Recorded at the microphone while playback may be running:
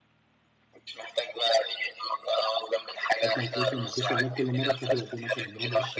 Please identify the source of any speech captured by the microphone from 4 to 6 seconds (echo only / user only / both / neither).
both